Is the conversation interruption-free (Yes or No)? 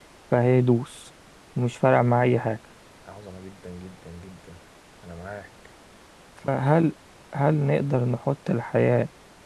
Yes